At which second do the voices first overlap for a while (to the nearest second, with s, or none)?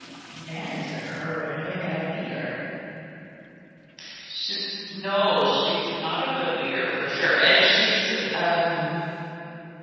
none